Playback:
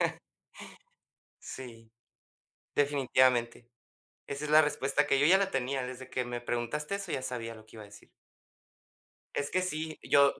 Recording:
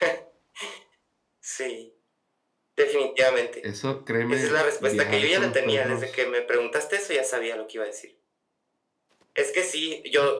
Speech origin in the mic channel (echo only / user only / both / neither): both